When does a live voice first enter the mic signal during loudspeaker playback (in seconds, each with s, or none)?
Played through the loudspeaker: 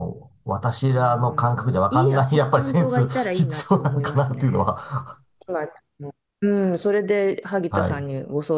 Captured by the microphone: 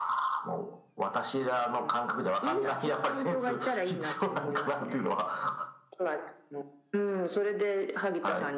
none